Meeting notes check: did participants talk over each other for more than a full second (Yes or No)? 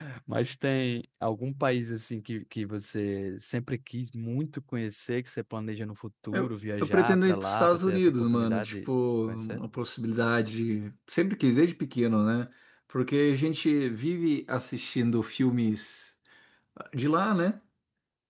Yes